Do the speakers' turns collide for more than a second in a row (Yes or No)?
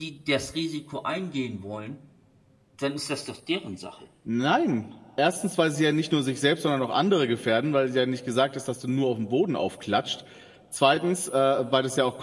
No